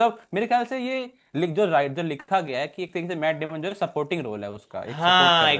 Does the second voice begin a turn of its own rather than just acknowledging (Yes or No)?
Yes